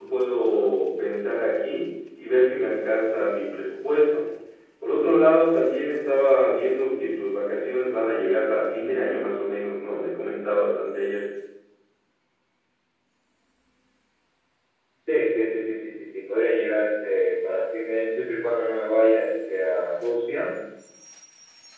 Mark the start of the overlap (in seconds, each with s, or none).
none